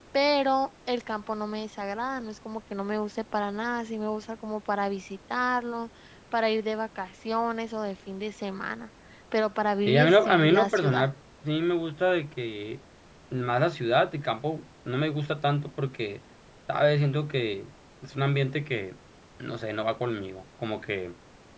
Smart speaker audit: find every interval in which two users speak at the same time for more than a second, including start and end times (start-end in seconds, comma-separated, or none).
9.9-11.1